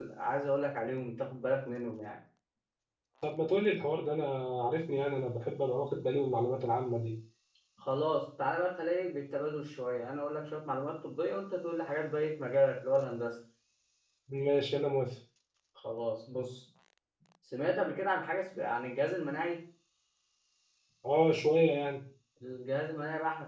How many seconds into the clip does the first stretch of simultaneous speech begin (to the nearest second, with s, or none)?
none